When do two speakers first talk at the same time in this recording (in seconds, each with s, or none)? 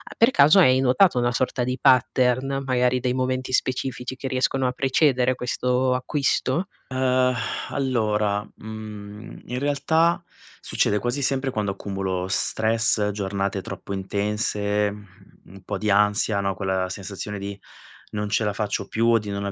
none